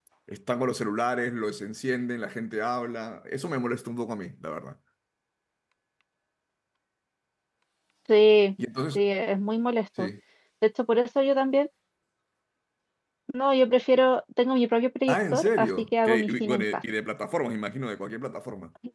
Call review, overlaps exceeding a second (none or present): present